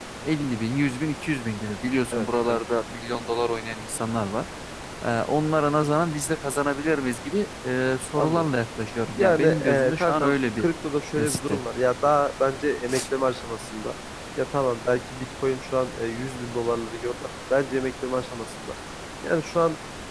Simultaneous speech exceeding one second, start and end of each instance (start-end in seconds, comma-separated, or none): 9.2-10.7